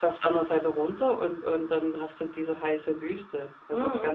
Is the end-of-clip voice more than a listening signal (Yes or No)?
Yes